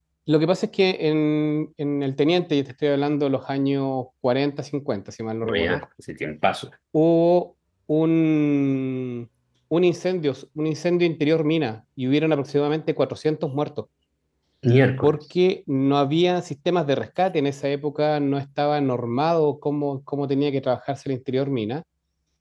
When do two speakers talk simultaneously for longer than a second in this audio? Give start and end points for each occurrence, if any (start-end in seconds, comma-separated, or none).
none